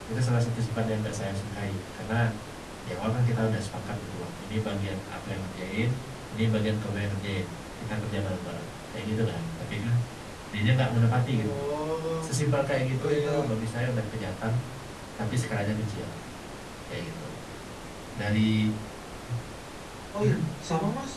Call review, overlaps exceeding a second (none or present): none